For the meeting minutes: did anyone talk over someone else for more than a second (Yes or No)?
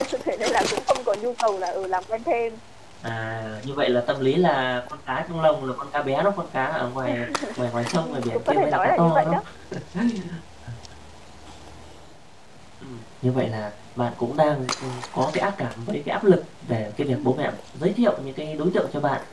Yes